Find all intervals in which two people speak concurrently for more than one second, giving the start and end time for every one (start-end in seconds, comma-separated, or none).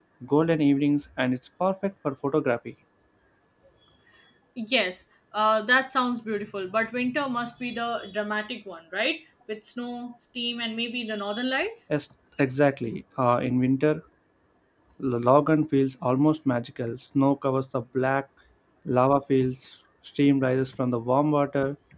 none